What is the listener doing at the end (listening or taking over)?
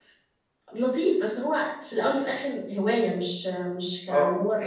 taking over